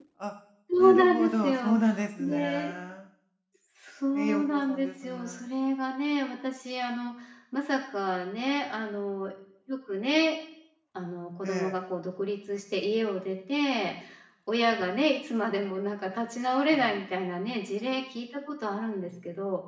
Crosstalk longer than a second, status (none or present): present